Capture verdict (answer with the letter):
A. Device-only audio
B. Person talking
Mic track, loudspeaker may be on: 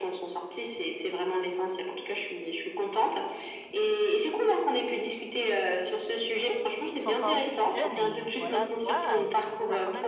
B